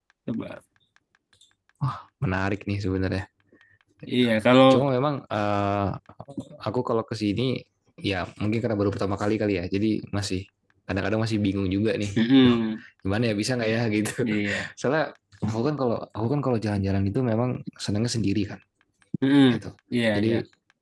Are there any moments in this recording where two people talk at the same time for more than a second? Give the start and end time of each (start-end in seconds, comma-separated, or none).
none